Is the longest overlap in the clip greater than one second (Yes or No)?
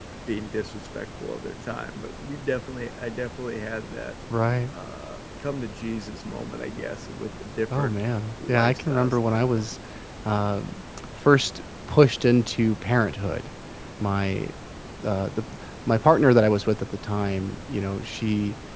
Yes